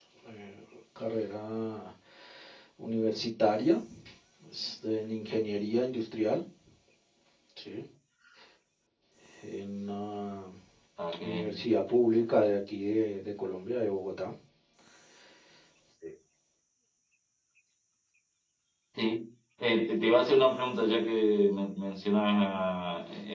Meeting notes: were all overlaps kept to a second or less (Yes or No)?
Yes